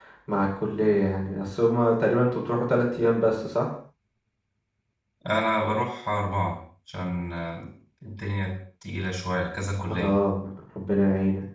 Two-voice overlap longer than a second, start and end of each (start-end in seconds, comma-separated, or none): none